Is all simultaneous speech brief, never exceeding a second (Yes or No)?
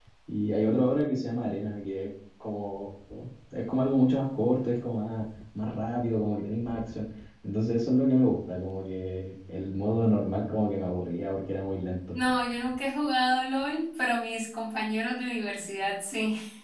Yes